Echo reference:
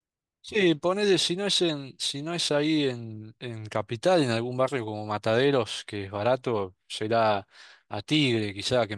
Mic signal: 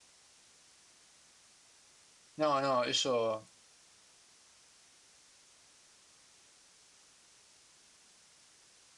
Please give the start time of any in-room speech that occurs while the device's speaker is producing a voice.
2 s

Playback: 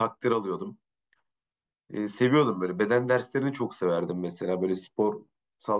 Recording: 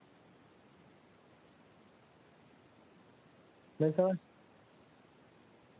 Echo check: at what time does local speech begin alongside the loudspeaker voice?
4 s

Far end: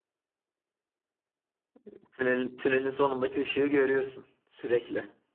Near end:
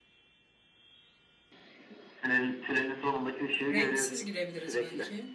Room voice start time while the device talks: 4 s

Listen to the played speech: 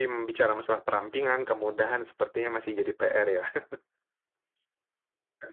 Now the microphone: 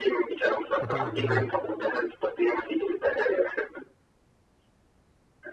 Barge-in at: 1 s

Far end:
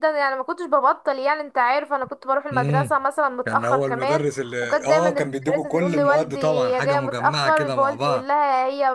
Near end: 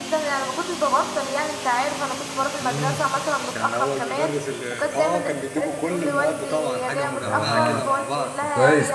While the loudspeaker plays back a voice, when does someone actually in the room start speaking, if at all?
7 s

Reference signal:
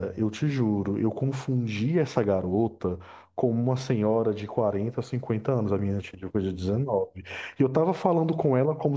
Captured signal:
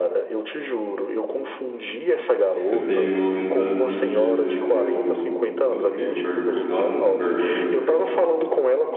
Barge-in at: 3 s

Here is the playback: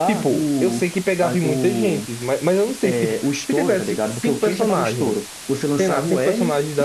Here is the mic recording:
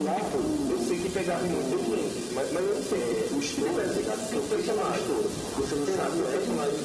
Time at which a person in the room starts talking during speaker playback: none

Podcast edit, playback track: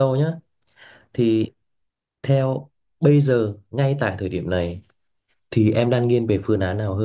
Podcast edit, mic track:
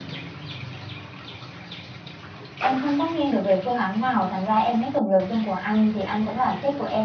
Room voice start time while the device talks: 3 s

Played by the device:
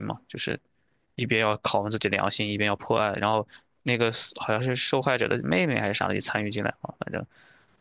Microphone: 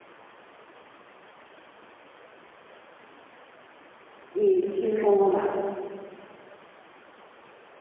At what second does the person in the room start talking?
4 s

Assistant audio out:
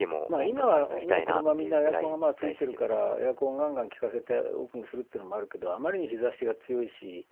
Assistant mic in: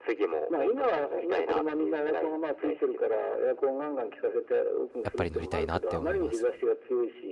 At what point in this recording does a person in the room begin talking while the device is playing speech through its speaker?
5 s

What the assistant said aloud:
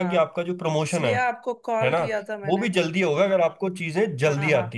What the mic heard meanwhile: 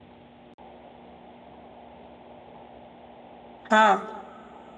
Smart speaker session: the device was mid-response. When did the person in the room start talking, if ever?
4 s

